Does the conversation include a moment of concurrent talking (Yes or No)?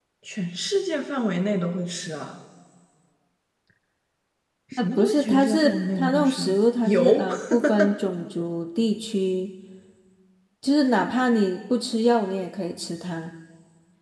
Yes